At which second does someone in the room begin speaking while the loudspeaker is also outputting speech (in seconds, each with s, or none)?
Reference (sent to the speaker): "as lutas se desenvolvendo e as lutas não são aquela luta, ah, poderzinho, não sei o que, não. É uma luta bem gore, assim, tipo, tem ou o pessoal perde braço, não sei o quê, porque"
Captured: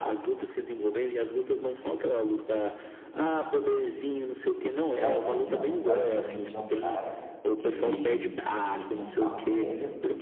4.9 s